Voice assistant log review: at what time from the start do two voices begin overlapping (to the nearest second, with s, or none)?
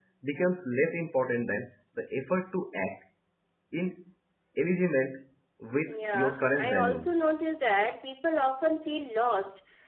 6 s